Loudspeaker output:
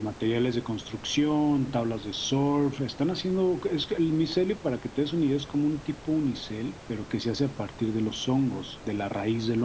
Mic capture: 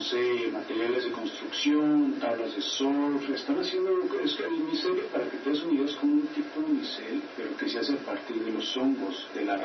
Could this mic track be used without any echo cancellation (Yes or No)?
No